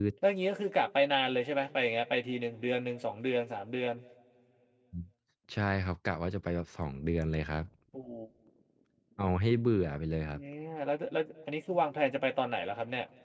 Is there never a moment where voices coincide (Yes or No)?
Yes